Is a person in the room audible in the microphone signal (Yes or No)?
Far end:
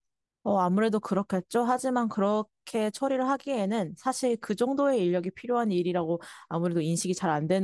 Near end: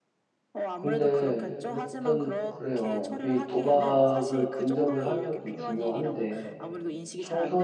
Yes